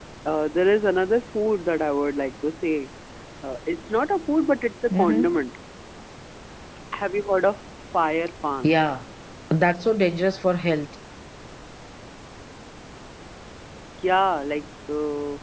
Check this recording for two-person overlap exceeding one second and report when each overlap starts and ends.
none

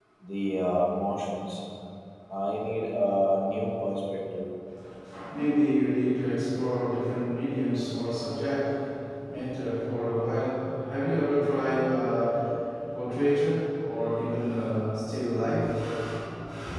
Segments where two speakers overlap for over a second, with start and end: none

